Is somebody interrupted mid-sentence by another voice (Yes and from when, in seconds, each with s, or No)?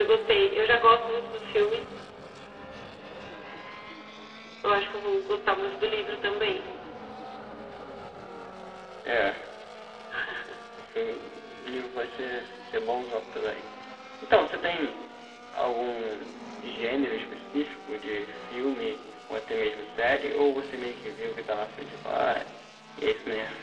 No